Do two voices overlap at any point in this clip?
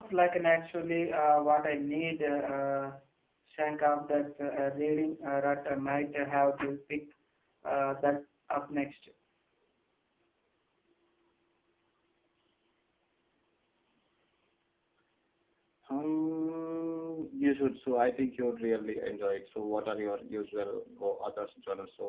No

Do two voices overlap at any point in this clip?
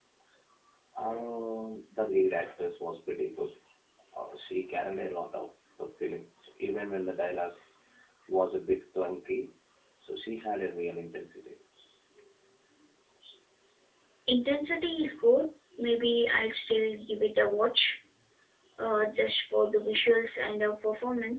No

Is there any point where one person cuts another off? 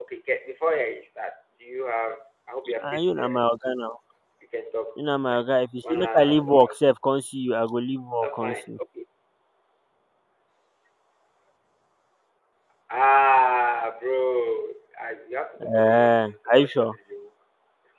Yes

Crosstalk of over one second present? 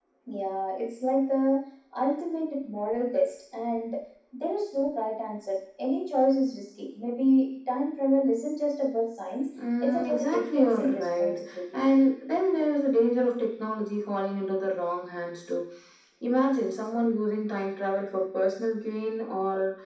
Yes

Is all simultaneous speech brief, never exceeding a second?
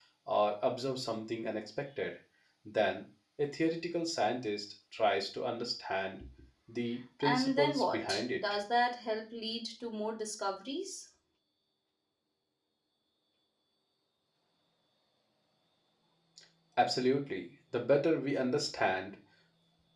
No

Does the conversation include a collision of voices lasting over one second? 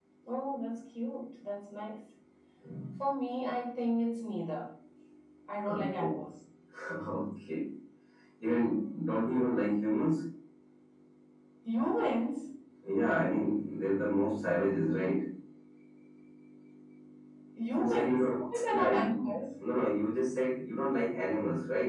Yes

